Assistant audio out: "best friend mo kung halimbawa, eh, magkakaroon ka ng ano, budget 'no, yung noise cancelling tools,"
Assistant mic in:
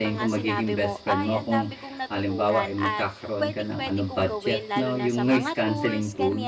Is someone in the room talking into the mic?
Yes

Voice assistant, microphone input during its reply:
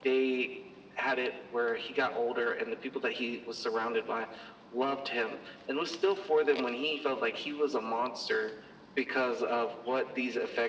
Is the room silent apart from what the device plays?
Yes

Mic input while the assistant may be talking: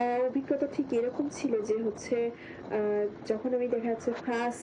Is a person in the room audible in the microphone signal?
No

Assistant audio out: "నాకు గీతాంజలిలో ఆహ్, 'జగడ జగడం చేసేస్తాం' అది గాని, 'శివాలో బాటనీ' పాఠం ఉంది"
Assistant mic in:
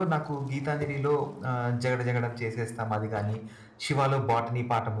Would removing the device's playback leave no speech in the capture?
Yes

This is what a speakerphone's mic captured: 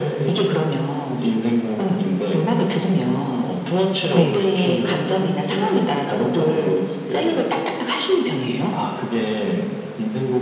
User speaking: Yes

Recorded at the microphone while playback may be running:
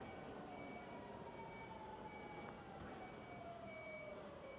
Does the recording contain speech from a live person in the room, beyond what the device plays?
No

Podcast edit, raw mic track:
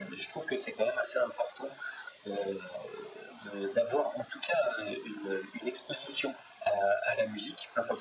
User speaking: No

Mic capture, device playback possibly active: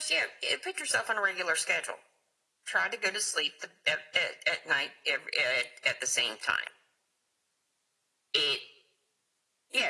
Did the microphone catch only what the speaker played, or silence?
Yes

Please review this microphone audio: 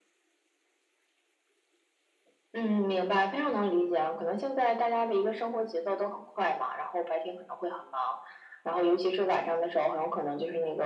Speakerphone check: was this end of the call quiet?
Yes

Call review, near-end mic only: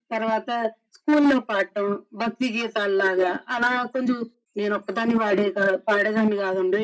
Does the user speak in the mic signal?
No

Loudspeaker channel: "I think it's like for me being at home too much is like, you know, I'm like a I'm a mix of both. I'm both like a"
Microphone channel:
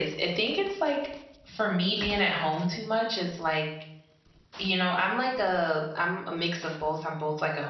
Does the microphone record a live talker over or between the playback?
No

